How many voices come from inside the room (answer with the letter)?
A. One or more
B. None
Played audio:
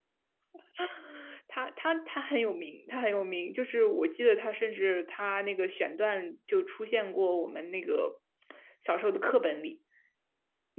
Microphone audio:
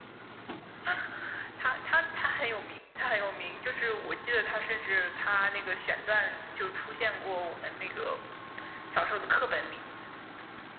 B